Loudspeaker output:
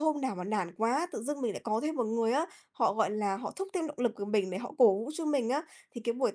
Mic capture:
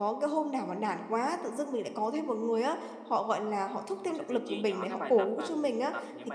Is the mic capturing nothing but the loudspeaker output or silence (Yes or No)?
No